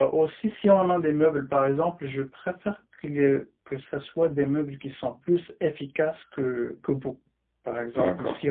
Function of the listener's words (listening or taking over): listening